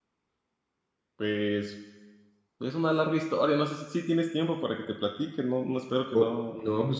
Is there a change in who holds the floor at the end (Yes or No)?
Yes